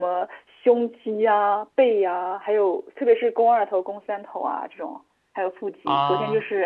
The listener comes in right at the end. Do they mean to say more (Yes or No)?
No